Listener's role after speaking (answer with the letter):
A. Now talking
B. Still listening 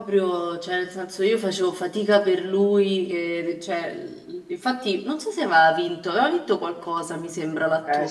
A